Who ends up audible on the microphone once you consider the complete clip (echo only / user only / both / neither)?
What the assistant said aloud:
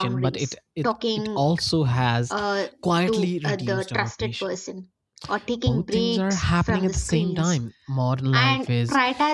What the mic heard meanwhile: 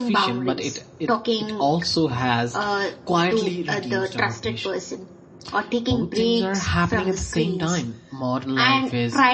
echo only